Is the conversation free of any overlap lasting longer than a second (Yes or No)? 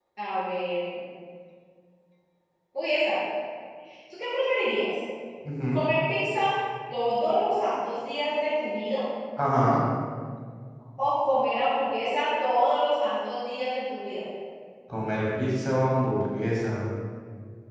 Yes